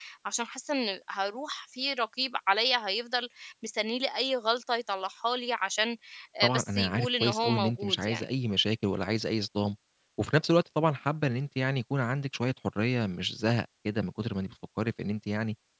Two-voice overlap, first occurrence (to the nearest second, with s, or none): 6 s